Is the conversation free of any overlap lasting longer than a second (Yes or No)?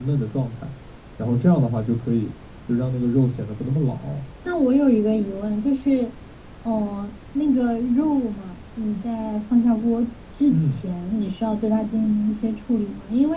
Yes